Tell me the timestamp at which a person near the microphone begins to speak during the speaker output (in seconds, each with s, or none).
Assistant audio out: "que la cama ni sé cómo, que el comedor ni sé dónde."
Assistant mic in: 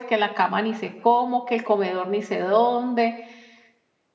none